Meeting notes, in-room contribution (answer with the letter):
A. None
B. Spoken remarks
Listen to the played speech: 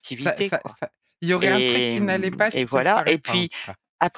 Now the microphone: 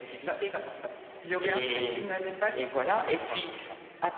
B